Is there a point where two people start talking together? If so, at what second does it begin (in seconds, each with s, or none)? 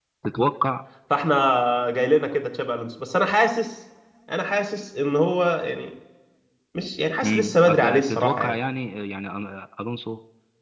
7.2 s